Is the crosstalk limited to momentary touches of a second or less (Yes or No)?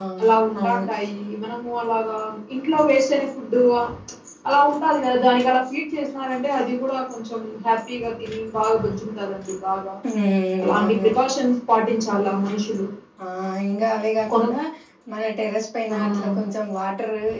Yes